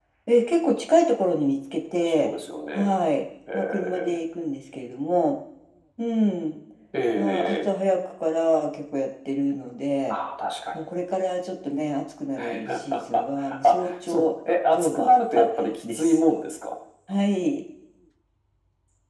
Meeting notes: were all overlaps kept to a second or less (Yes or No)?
No